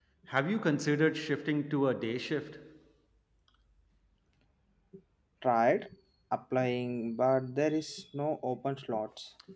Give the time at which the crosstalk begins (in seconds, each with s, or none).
none